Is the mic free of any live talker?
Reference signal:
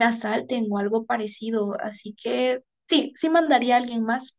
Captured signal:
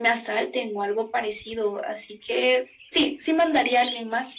Yes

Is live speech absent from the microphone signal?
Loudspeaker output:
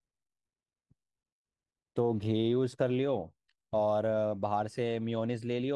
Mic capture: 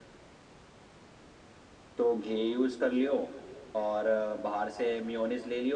Yes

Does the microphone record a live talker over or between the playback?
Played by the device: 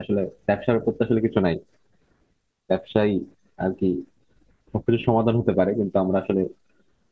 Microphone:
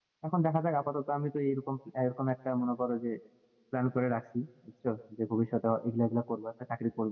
Yes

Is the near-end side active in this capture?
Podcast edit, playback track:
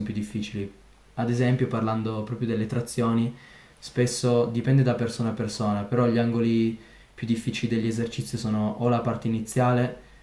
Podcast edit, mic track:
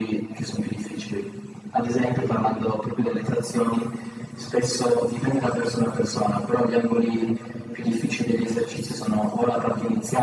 No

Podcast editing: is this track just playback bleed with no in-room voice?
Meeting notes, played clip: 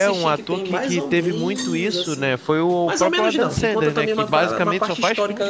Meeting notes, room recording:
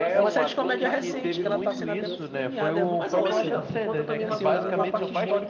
No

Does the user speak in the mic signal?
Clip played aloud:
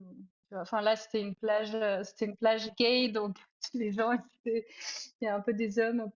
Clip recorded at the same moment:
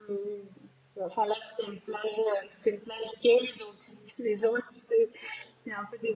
No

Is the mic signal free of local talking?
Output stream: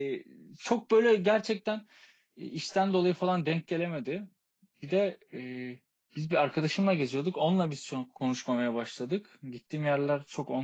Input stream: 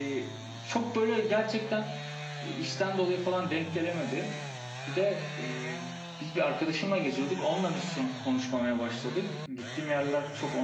Yes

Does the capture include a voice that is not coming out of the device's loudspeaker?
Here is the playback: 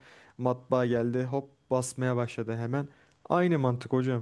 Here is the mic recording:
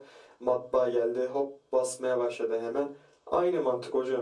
No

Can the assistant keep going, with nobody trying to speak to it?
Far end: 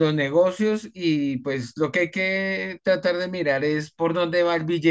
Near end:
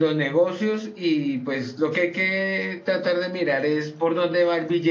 Yes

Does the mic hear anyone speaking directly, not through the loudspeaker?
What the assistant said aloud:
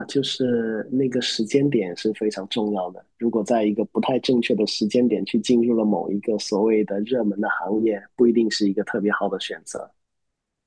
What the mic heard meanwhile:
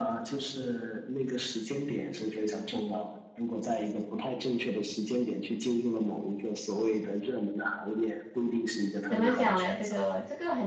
Yes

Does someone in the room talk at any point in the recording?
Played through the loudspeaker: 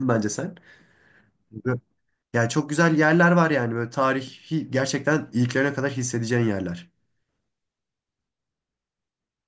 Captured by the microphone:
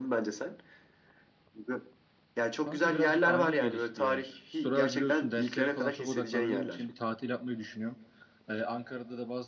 Yes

